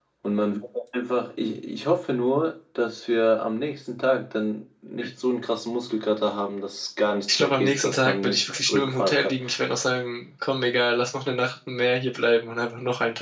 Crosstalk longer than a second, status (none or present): present